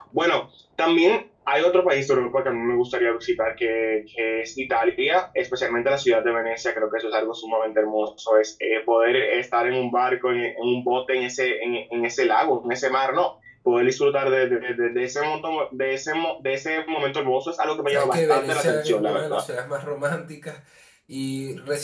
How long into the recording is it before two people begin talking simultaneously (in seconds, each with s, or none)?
17.9 s